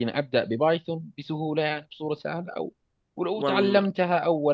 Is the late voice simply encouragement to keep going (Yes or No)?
Yes